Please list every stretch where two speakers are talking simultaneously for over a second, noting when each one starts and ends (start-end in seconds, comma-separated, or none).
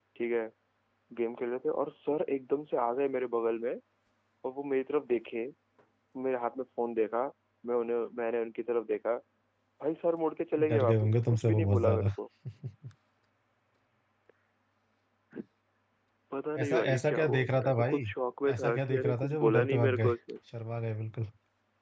10.7-12.1, 16.6-18.0, 18.5-20.1